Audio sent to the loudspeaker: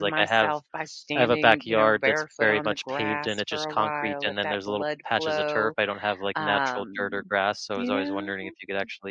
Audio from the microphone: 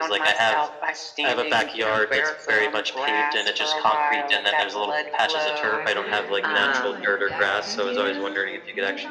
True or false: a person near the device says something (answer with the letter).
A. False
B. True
B